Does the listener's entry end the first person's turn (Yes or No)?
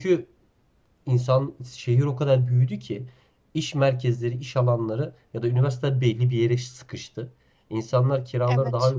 No